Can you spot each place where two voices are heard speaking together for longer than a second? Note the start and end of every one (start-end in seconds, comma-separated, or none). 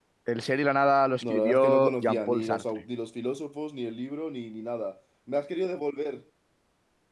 1.2-2.8